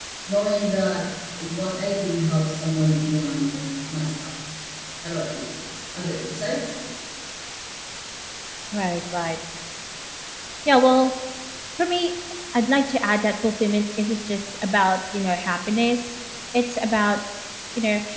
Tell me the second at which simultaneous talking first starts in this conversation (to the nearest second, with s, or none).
none